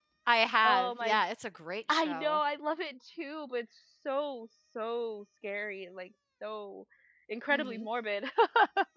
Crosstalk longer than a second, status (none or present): none